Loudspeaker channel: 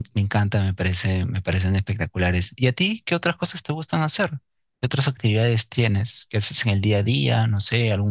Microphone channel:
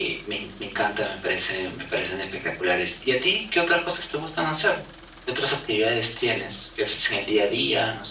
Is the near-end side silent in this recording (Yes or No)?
Yes